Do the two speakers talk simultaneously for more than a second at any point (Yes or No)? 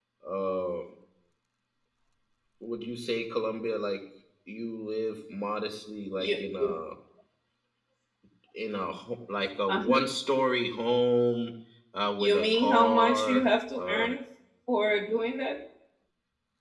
Yes